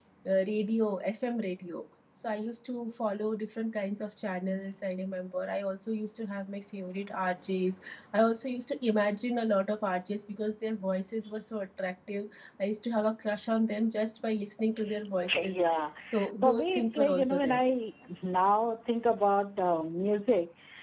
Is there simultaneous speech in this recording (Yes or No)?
Yes